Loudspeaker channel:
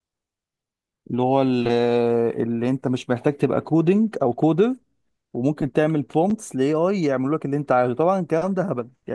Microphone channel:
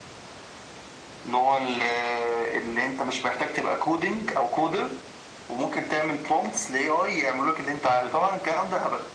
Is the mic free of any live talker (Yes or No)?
Yes